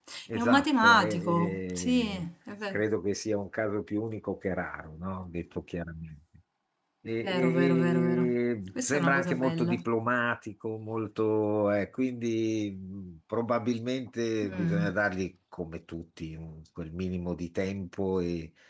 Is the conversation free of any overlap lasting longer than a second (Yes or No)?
No